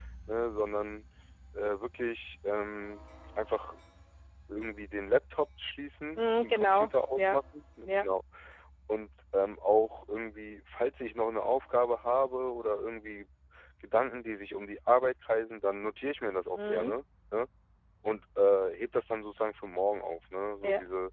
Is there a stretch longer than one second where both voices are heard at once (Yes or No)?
Yes